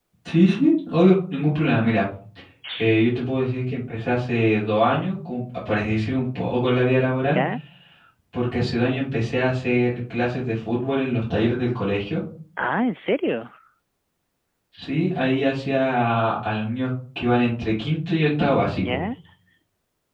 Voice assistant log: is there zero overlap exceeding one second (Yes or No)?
Yes